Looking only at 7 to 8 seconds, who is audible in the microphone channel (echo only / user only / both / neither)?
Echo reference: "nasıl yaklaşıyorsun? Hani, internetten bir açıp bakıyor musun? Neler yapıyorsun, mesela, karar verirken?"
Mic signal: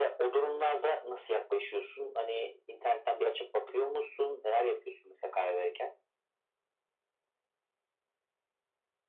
neither